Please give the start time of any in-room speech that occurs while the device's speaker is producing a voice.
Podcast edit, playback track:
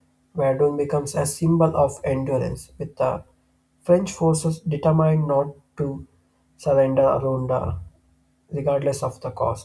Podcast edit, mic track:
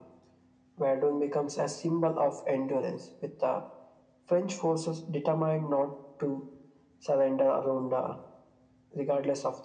none

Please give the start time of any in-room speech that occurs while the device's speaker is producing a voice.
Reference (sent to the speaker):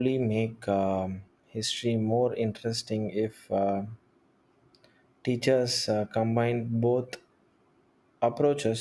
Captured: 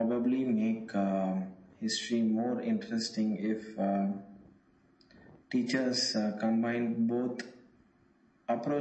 none

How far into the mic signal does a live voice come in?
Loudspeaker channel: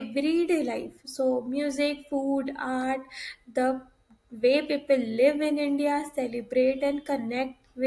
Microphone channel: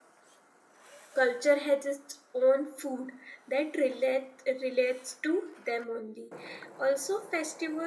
1 s

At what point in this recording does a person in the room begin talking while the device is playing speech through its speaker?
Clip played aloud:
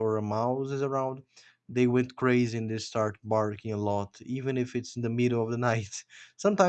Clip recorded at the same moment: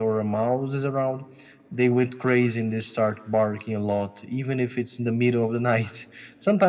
none

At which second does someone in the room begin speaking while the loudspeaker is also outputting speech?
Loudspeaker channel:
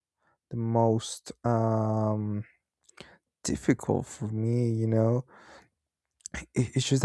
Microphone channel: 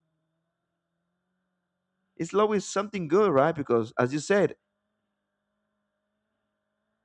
2 s

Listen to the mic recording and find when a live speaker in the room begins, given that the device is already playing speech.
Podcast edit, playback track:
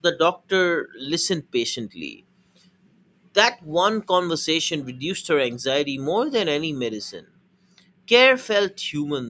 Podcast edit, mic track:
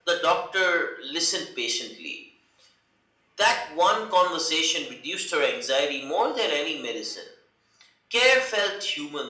none

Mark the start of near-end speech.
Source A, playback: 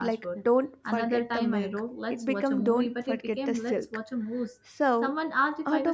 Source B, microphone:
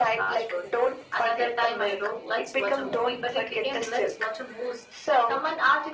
none

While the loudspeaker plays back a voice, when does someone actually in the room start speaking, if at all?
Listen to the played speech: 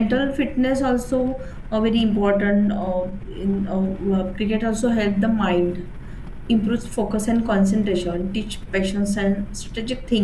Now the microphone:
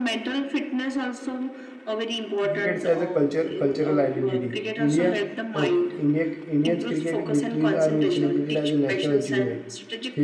2 s

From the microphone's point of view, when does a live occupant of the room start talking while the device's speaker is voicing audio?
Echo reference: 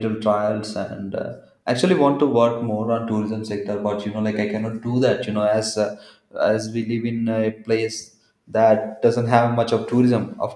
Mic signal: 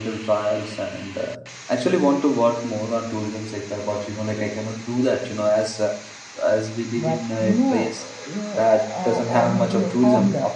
7 s

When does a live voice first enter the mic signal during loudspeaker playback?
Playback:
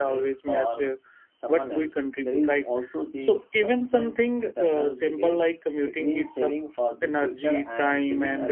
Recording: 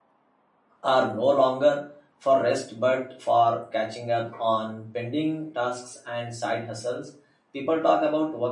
1 s

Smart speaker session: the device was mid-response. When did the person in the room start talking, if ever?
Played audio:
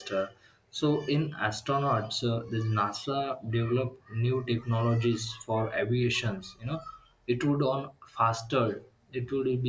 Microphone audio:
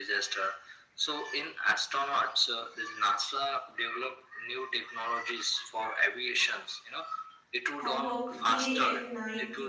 8 s

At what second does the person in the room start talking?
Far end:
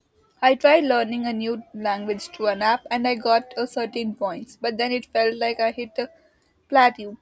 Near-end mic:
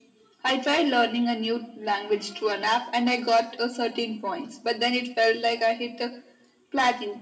none

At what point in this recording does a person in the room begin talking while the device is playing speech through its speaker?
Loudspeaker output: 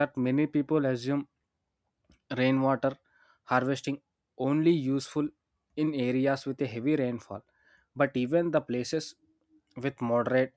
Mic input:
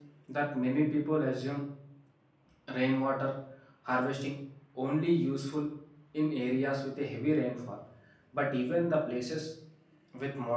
none

